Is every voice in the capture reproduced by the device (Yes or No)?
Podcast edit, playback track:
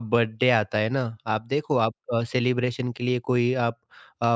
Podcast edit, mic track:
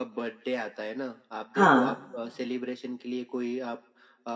No